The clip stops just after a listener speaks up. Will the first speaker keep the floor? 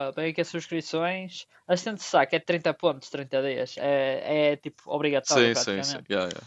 No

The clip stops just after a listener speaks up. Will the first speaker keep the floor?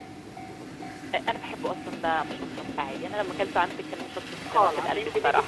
No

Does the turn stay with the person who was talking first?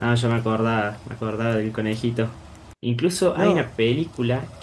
Yes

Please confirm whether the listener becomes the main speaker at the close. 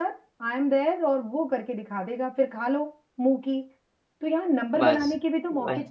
No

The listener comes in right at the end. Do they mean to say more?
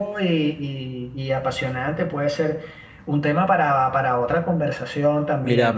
Yes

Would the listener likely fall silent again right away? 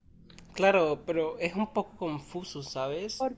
Yes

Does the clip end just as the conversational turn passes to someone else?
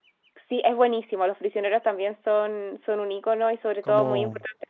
No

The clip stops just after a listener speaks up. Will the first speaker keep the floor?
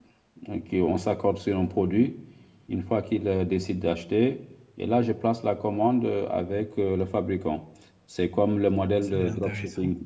Yes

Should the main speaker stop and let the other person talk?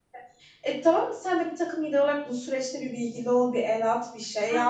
Yes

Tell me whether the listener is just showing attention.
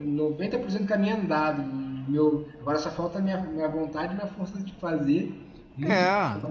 Yes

